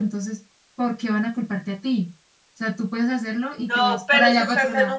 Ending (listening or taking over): taking over